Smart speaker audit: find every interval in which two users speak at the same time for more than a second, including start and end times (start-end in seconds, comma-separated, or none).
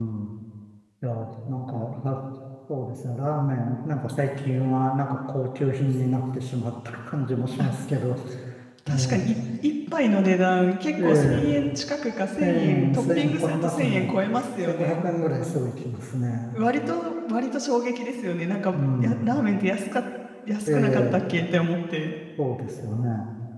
12.4-14.1